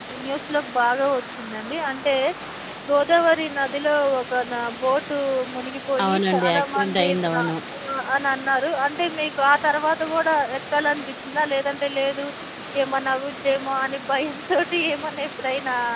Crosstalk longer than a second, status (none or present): present